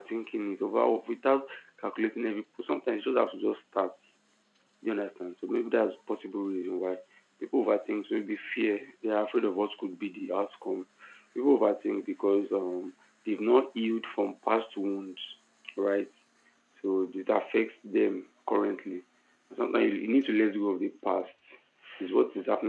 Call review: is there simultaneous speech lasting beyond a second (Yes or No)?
No